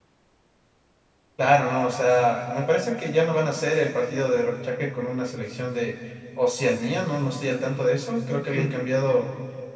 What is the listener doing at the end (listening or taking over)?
listening